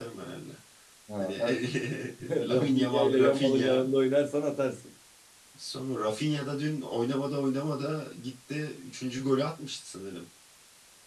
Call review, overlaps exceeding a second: present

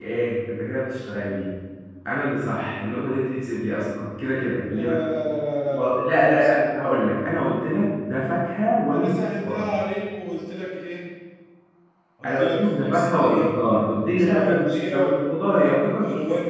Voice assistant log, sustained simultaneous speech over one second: present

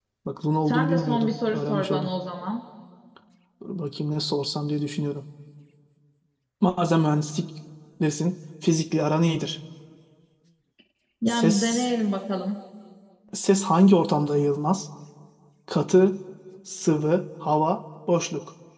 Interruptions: present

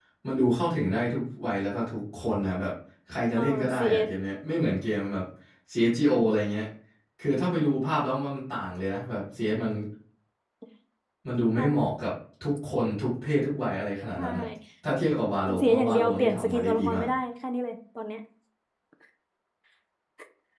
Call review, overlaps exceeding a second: present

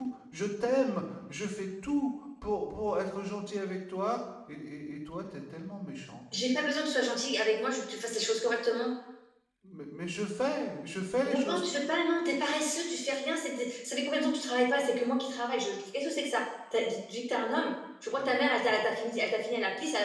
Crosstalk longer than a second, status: none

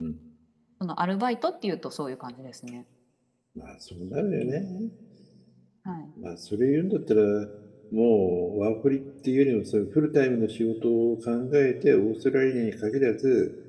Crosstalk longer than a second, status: none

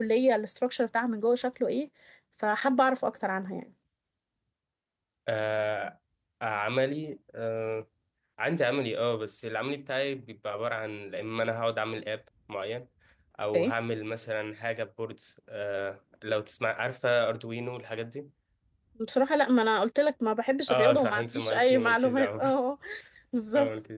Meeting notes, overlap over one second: present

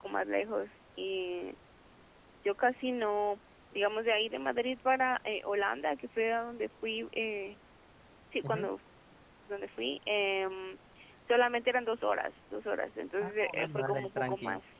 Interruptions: present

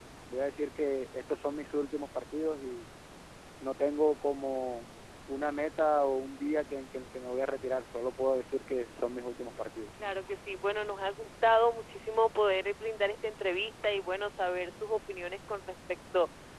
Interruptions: none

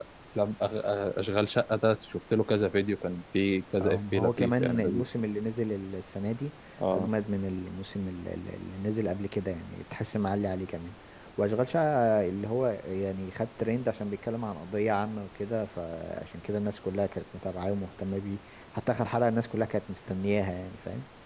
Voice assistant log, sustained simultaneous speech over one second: present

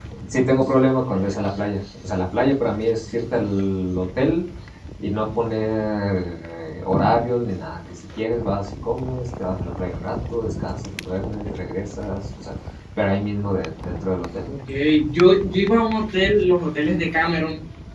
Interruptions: none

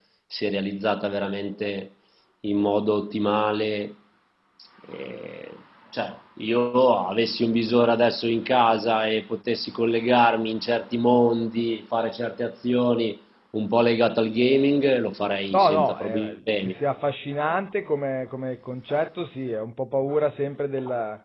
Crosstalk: present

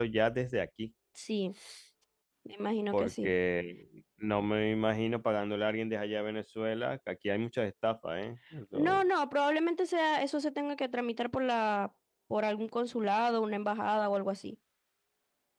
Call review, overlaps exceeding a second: none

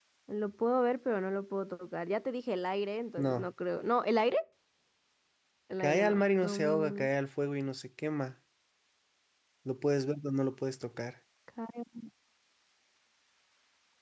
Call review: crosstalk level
present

